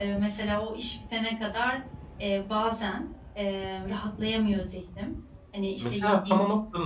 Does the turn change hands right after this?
Yes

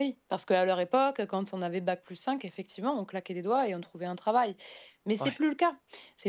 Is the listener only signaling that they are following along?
Yes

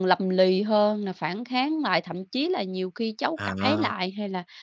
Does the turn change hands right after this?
No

